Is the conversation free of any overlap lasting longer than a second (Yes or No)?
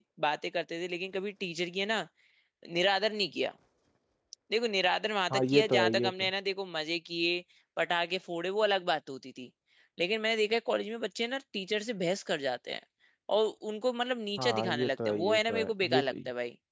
No